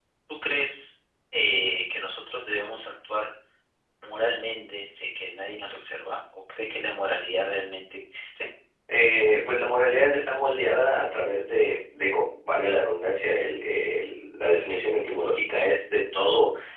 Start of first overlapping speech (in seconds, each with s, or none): none